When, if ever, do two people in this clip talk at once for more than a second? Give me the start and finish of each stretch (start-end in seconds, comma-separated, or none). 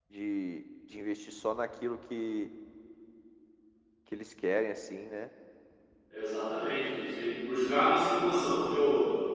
none